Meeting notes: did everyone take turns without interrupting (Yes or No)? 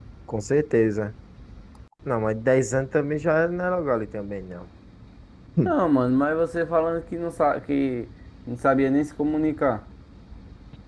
Yes